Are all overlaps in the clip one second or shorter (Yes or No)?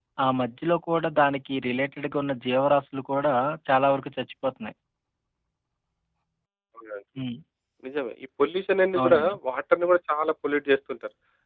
Yes